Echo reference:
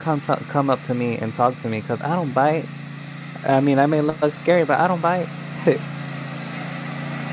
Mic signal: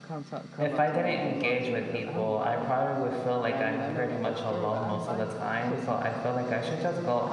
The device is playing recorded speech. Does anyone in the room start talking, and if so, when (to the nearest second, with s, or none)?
1 s